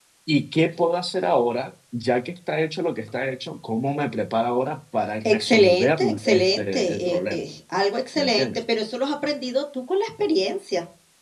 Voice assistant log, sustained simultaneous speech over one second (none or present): present